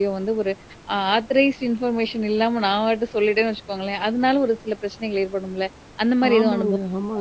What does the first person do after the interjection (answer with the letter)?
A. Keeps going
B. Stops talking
B